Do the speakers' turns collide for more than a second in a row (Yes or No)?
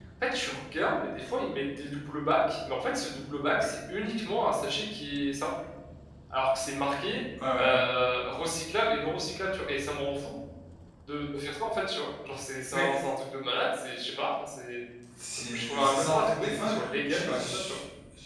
Yes